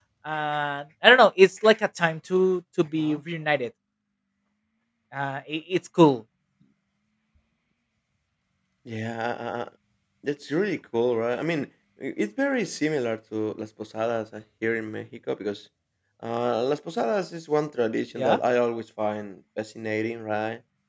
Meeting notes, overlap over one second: none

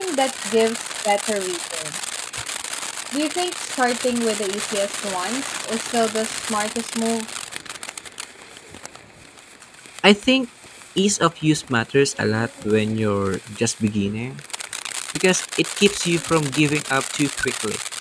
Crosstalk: none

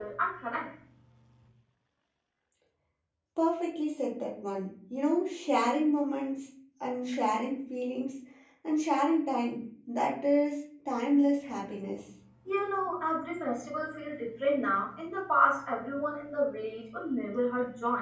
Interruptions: none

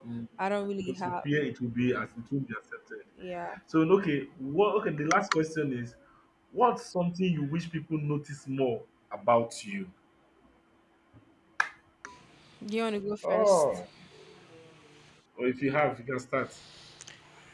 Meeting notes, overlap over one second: none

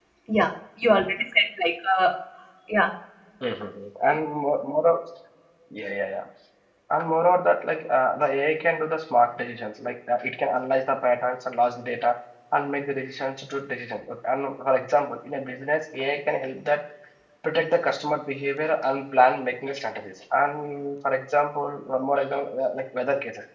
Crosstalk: none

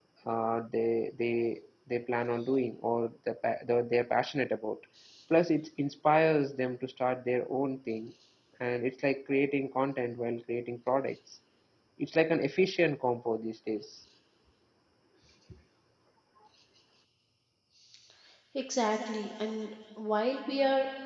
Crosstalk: none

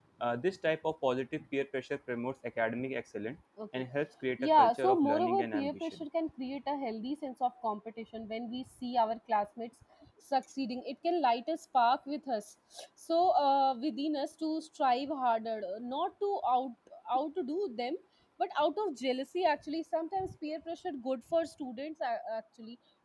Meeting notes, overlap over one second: present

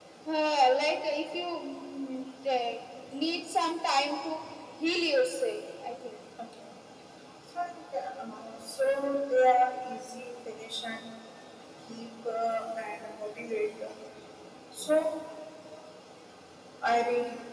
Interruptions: none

